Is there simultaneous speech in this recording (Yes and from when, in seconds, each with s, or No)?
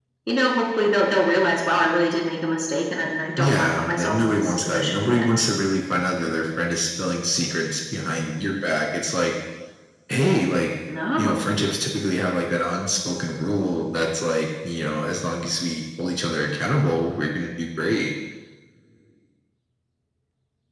Yes, from 3.4 s